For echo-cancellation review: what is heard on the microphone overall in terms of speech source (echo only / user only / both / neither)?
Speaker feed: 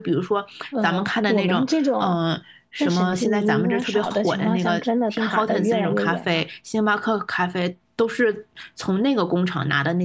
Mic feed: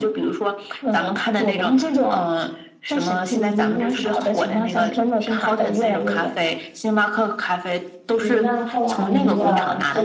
both